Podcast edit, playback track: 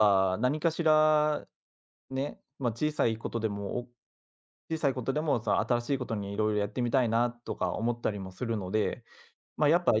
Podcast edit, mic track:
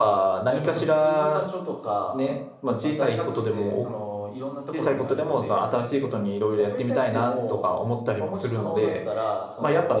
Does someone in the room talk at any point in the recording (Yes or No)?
Yes